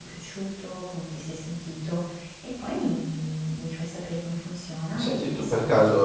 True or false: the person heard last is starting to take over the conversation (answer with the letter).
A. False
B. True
B